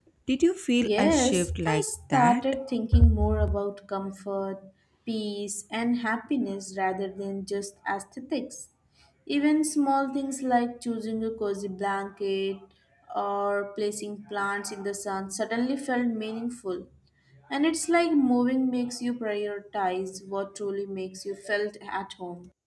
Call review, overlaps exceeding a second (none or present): present